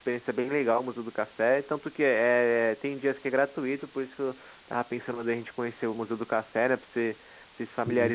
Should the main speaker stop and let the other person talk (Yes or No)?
No